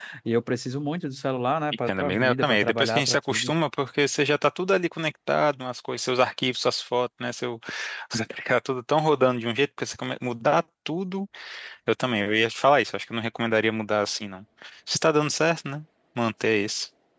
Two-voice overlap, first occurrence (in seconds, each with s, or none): 1.9 s